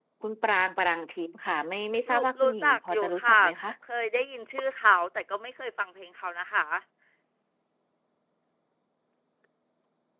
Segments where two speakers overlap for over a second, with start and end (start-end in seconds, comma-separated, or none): 2.1-3.4